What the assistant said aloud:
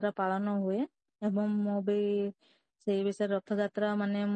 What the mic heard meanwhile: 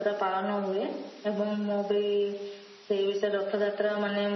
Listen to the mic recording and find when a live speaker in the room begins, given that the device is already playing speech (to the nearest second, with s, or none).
none